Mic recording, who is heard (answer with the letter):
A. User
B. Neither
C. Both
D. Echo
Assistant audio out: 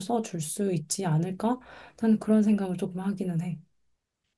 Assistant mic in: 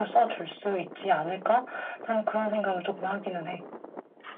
D